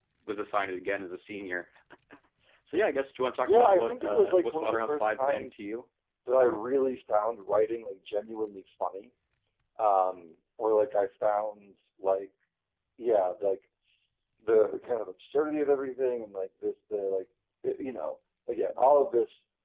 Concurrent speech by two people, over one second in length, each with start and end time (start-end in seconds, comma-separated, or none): 3.5-5.6